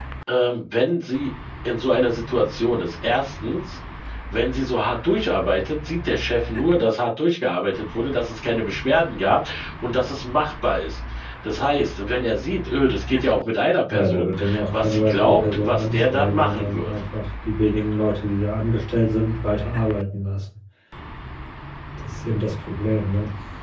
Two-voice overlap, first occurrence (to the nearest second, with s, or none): 14 s